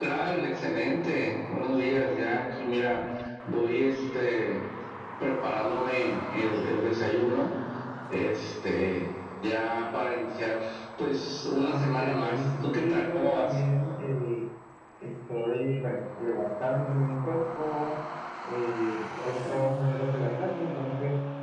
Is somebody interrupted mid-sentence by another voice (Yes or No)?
Yes